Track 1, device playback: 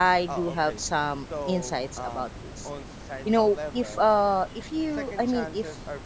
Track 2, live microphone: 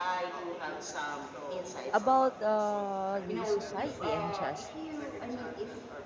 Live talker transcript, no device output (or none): About uh the society and justice.